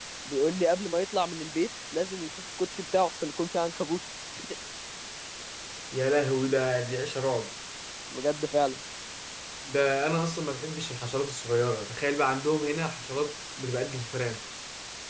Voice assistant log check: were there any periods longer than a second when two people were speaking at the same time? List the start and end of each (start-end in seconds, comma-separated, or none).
none